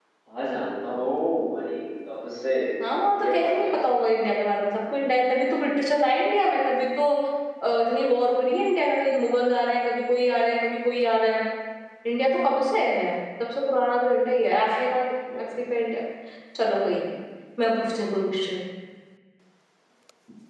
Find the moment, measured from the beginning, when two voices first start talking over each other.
2.8 s

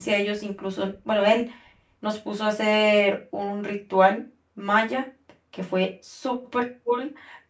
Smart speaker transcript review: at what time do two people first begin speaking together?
none

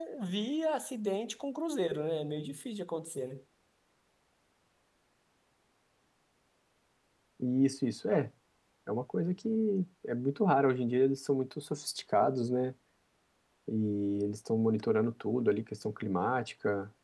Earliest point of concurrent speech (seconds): none

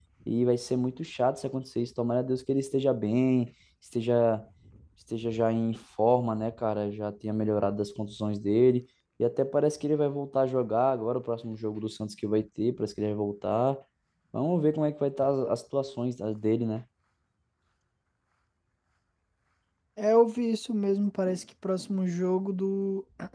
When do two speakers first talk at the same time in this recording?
none

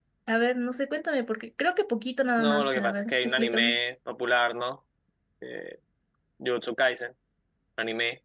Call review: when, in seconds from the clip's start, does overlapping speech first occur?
2.4 s

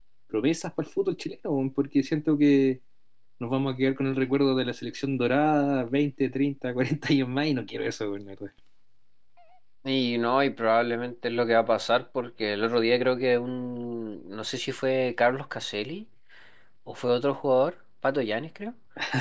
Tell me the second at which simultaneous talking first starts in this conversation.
none

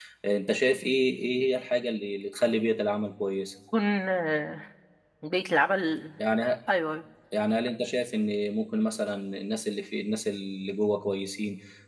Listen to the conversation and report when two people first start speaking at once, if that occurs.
none

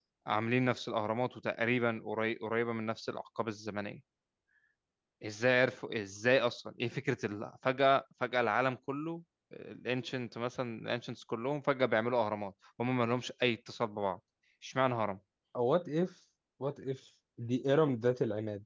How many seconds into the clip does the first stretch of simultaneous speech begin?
none

